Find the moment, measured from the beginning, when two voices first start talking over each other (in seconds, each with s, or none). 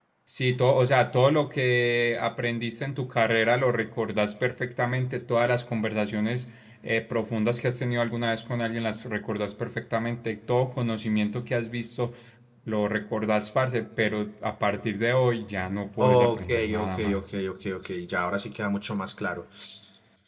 16.0 s